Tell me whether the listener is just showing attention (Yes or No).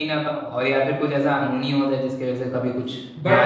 No